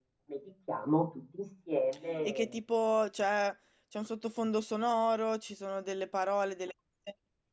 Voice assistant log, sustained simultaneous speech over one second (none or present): none